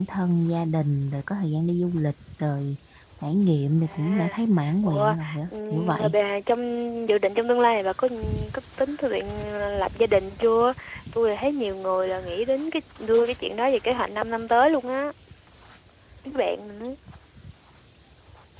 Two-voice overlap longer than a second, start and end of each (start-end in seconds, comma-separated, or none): 4.8-6.1